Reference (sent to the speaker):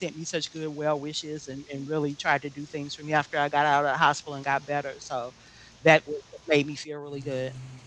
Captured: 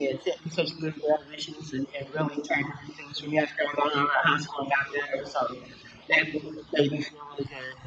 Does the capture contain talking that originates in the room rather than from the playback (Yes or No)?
No